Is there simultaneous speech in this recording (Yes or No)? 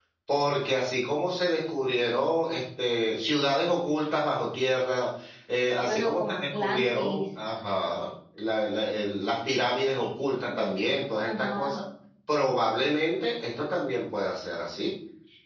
Yes